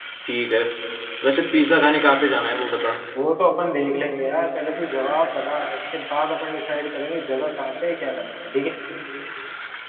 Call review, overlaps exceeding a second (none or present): none